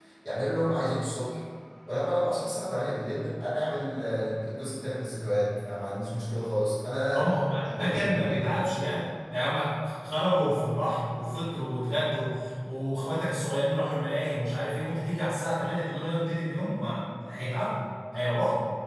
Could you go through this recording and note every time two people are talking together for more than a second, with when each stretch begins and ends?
7.8-9.0

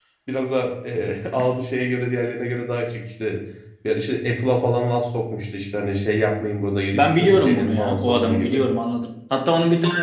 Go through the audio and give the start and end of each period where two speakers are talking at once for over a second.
6.9-8.6

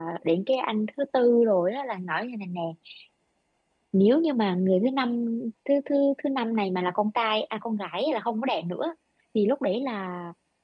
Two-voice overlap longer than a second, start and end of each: none

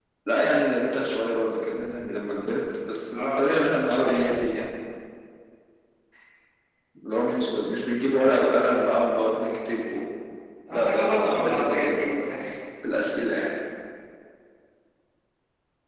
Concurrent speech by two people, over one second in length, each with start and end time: 10.7-12.3

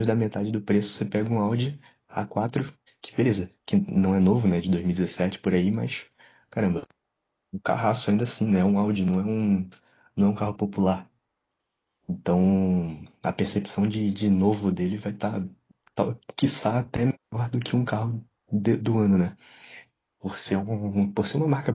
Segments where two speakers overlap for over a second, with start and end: none

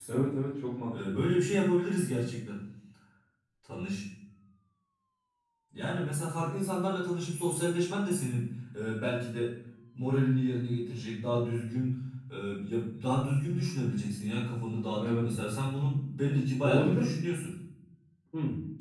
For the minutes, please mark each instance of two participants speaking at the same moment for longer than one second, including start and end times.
none

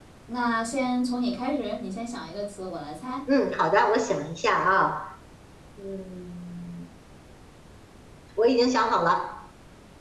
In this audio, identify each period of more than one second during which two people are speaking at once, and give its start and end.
none

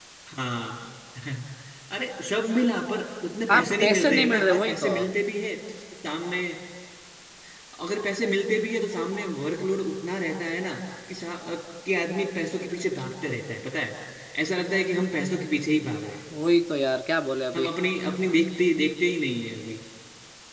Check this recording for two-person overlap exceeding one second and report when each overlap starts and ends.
3.5-4.9

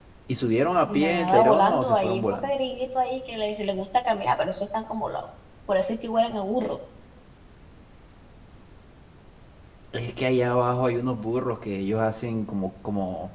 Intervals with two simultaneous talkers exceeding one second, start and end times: 0.9-2.5

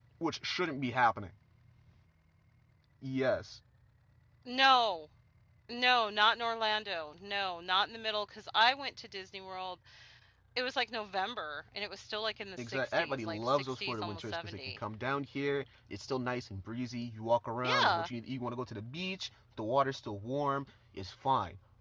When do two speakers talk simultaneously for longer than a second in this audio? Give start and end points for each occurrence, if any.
12.6-14.6

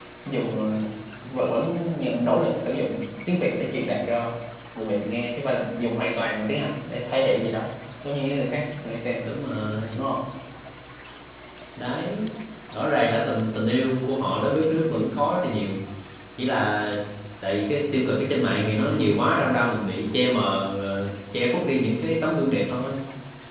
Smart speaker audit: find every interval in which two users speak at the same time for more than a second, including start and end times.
none

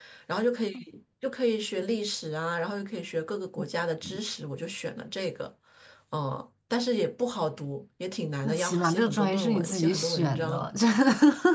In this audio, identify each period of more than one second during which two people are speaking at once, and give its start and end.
8.4-10.7

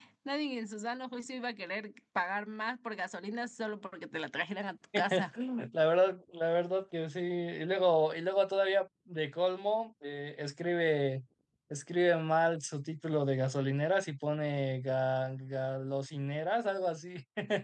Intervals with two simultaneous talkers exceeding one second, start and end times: none

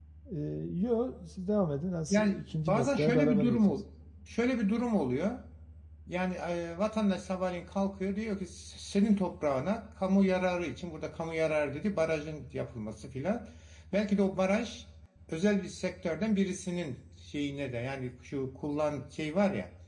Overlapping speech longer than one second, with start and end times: 2.1-3.8

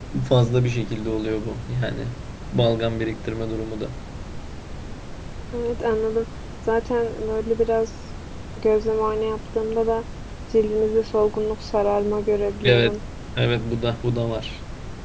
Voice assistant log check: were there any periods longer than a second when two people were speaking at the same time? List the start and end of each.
none

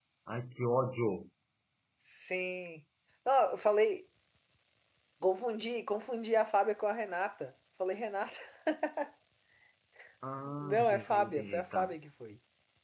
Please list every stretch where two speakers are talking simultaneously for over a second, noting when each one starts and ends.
10.6-11.9

